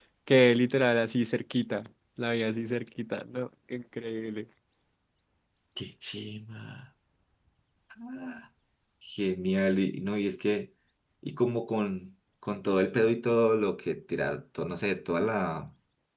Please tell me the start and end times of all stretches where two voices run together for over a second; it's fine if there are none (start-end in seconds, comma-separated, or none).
none